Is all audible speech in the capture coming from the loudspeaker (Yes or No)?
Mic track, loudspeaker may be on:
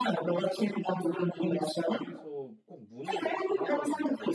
No